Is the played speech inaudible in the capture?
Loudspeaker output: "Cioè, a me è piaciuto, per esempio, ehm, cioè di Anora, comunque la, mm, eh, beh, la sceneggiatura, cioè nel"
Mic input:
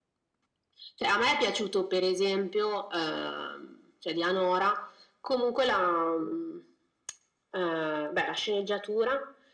No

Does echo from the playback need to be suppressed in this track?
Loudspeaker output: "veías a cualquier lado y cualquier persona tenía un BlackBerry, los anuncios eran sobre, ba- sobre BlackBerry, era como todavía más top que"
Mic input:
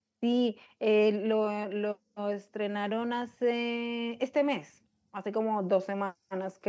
No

